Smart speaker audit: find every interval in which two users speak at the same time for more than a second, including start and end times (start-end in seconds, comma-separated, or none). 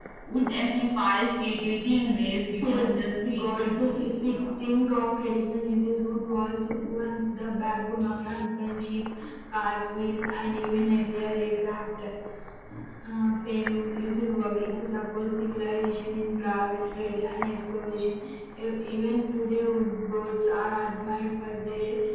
2.6-4.4